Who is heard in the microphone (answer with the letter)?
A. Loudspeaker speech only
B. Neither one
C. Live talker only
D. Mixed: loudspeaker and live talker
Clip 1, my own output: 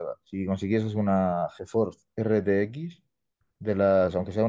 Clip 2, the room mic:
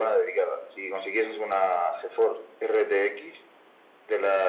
A